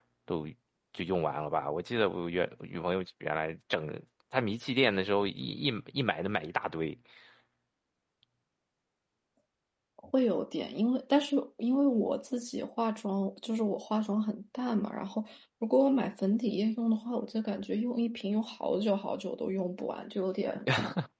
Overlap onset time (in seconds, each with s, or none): none